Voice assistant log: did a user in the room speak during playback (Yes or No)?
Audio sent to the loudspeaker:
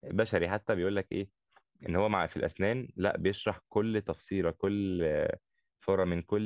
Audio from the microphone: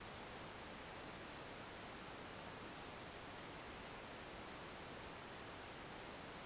No